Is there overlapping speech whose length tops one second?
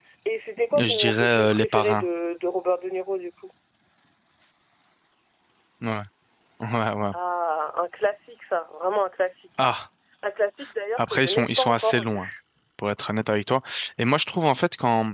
Yes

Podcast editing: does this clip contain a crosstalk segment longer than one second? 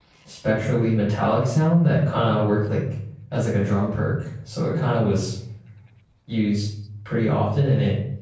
No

